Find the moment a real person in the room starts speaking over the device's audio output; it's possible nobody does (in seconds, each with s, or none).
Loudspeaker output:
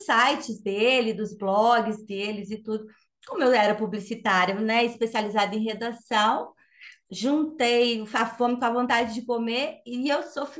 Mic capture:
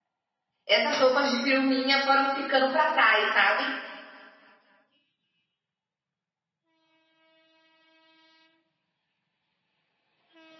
0.7 s